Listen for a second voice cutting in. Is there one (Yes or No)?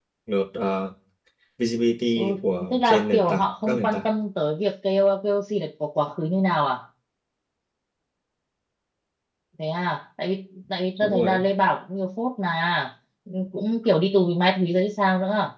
Yes